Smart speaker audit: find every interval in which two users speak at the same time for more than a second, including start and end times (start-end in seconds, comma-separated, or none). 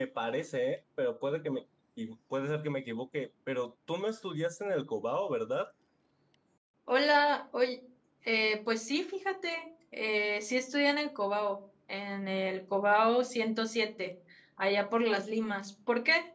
none